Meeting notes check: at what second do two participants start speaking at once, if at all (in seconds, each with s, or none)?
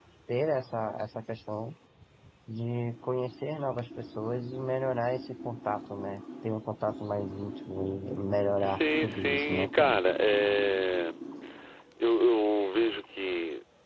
8.6 s